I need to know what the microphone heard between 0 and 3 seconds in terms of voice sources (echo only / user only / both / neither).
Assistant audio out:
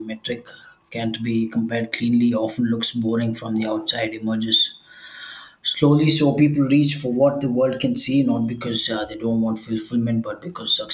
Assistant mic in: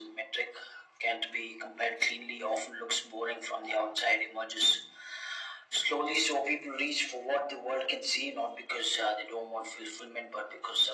echo only